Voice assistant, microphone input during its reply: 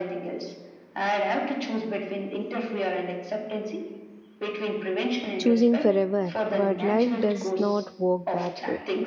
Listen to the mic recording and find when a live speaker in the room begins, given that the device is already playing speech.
5.4 s

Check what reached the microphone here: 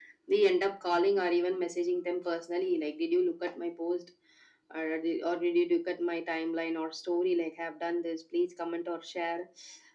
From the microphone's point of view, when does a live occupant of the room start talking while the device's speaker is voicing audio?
none

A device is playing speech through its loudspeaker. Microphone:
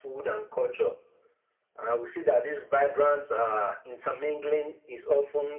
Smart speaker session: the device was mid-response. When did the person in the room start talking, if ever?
none

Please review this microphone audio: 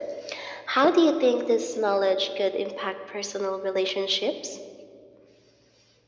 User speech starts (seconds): none

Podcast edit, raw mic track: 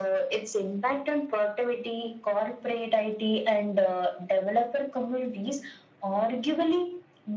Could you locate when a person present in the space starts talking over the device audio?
none

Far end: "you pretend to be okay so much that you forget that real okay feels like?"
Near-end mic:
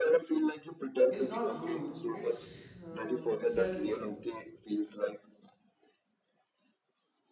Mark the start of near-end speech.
1.1 s

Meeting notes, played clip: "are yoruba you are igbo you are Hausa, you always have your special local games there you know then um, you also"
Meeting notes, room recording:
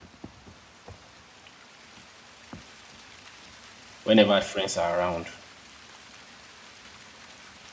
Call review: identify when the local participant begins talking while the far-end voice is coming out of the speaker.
4.0 s

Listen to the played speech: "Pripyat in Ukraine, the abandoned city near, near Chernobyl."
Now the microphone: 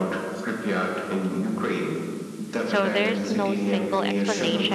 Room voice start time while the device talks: 2.6 s

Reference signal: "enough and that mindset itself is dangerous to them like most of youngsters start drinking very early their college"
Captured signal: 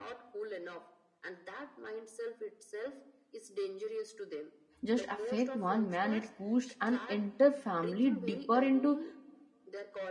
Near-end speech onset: 4.8 s

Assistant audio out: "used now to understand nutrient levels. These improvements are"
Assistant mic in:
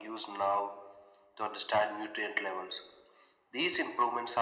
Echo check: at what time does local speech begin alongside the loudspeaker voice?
none

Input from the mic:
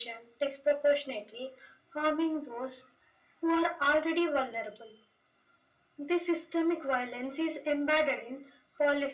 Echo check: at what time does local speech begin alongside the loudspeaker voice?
none

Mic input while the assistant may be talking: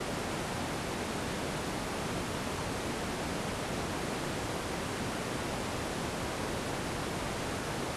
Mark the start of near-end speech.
none

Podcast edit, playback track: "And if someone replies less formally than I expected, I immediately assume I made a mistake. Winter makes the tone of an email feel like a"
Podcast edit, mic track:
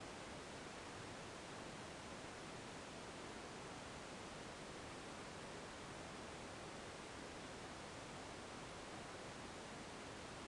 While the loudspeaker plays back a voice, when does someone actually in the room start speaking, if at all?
none

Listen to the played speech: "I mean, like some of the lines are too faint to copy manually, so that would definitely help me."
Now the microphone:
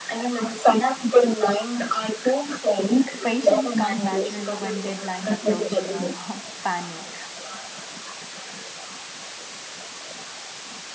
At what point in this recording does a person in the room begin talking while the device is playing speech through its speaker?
3.2 s

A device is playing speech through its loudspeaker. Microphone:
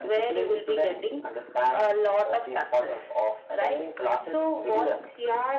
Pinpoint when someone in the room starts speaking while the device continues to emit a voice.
none

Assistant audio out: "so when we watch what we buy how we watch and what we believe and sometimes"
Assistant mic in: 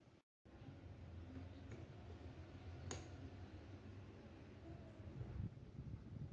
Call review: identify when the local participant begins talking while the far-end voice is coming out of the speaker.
none

